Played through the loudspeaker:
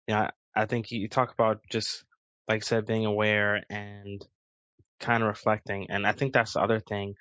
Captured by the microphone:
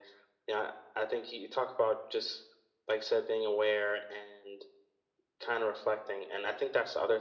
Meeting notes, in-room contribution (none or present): none